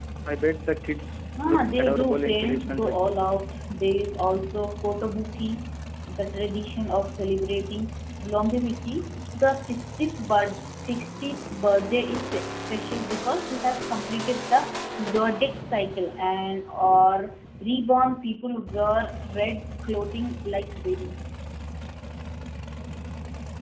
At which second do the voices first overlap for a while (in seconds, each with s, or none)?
1.4 s